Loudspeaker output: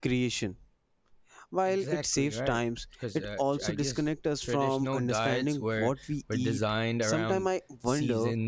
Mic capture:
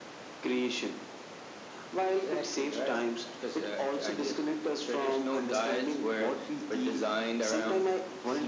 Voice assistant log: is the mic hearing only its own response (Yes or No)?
Yes